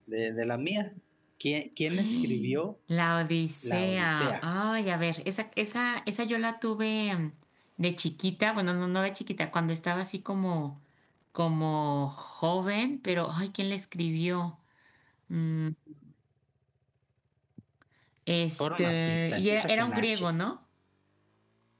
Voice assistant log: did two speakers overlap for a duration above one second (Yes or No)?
Yes